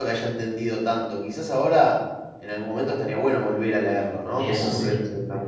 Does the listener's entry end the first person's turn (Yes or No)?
No